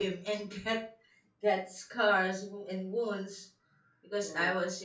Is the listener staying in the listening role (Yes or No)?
Yes